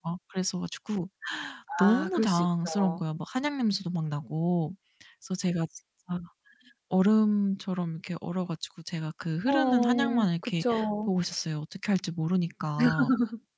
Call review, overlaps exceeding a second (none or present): present